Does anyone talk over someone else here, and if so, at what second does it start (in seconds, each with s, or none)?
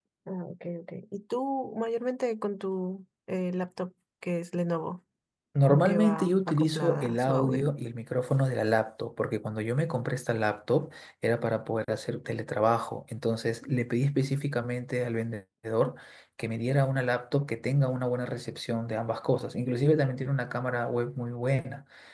5.7 s